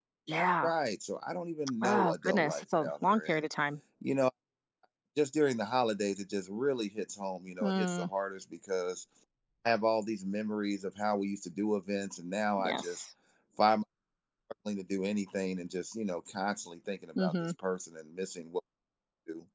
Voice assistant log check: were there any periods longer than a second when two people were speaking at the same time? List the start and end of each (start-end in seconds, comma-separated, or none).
1.8-3.4